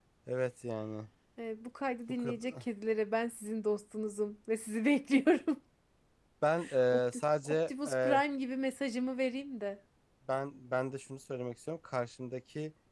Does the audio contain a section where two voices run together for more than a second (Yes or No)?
Yes